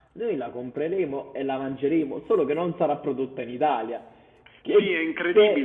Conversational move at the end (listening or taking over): taking over